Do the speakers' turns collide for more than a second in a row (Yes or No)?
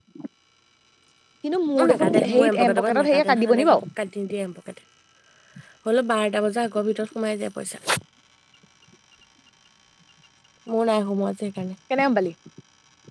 Yes